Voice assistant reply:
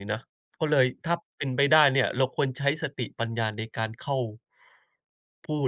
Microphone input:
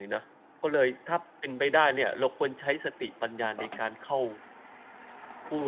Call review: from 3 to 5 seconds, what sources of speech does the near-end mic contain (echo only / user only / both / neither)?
echo only